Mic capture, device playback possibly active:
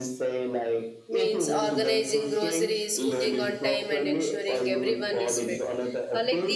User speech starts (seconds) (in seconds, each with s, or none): 1.1 s